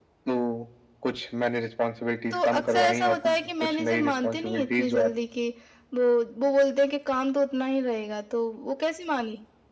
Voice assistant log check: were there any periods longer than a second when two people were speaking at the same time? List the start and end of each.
2.3-5.1

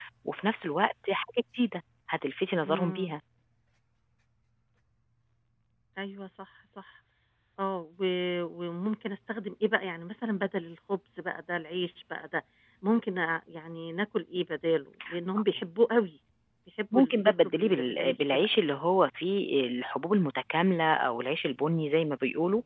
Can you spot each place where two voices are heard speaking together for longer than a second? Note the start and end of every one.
16.9-18.7

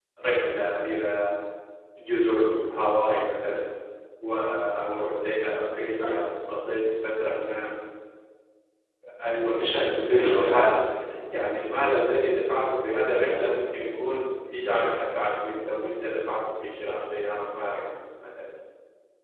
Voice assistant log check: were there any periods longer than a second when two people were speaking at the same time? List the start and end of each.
9.4-10.8

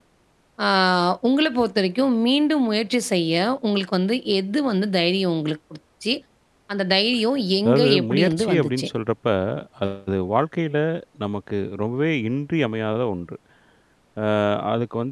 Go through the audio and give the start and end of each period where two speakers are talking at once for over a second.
7.6-8.9

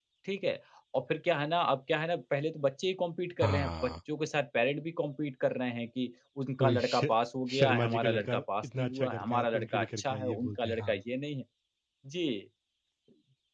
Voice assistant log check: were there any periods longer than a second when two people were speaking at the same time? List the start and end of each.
7.6-11.0

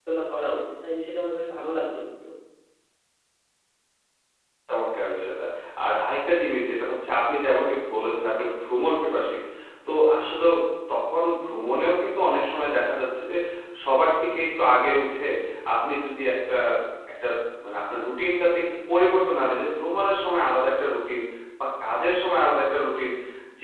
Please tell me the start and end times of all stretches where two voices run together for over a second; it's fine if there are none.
none

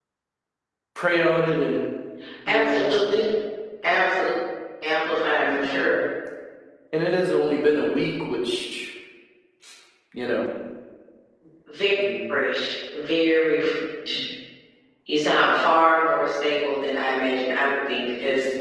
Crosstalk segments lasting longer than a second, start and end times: none

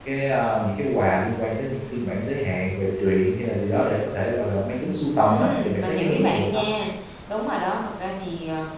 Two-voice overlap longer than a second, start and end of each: 5.2-6.6

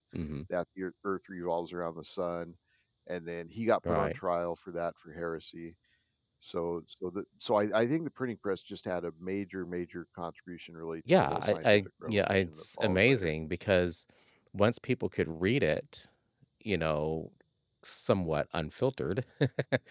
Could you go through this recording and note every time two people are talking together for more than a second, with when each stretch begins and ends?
11.1-13.3

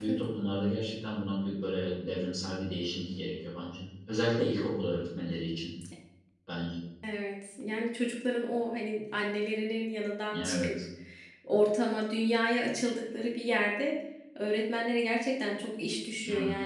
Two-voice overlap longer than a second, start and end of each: none

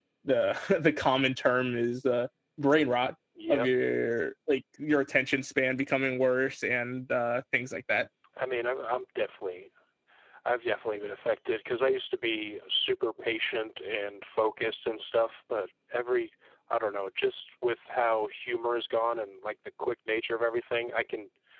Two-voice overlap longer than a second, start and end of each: none

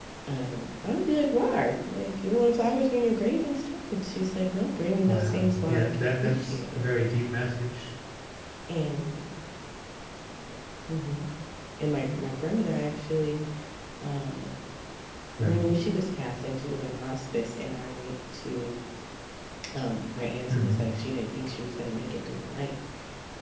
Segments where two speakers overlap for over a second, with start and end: 5.0-6.9

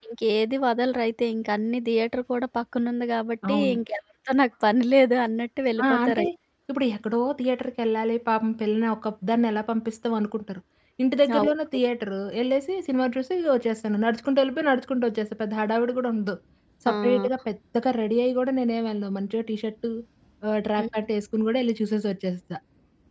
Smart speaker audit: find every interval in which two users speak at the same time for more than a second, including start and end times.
none

